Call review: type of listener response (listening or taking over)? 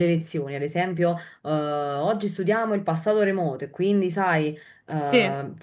listening